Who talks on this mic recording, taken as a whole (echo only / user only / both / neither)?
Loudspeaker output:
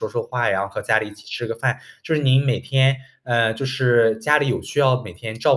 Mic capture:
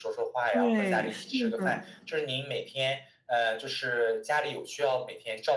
both